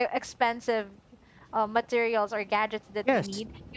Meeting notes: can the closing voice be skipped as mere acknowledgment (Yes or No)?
Yes